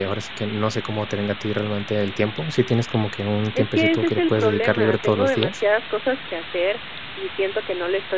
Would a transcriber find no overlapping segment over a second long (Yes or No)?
No